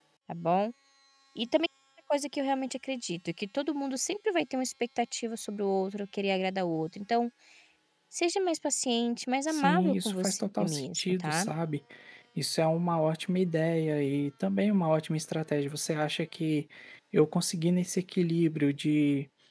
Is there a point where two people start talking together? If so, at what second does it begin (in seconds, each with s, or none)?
9.5 s